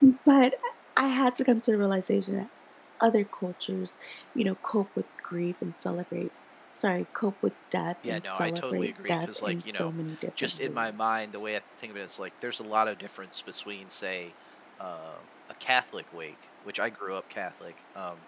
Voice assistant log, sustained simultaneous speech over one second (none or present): present